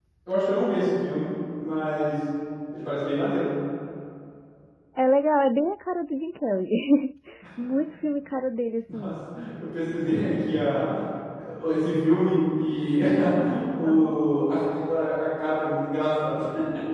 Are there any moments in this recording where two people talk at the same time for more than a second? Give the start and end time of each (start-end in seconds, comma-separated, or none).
none